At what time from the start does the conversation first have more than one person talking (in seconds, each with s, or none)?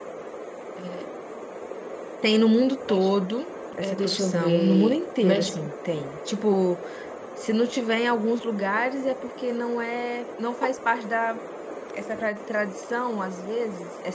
3.8 s